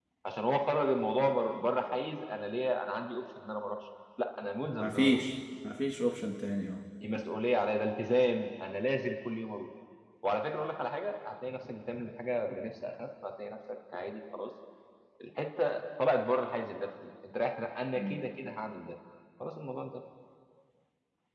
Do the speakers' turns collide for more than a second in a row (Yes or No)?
No